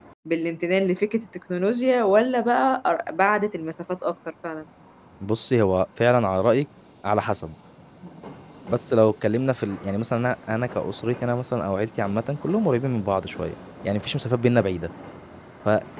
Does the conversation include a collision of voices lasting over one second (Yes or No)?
No